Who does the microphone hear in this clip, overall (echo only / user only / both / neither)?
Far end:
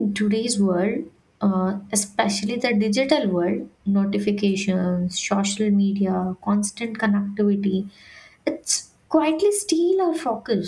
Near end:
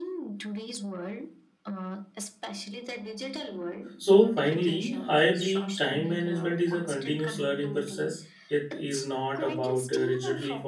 both